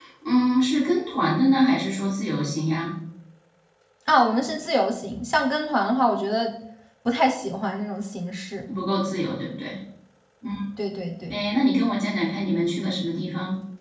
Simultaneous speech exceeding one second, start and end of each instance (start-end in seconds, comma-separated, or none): none